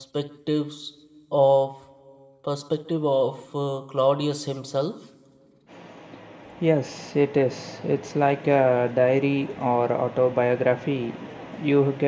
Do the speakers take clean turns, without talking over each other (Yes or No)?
Yes